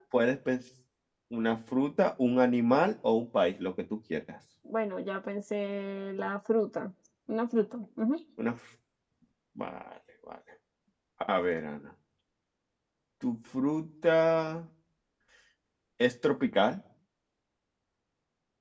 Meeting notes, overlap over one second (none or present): none